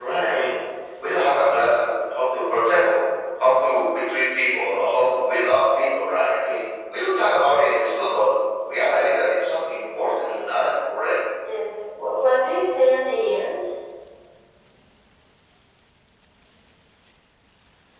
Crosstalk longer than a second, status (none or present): none